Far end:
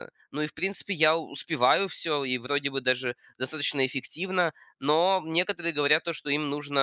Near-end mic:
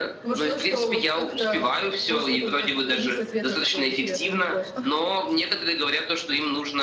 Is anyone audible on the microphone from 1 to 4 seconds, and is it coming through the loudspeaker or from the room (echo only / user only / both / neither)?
both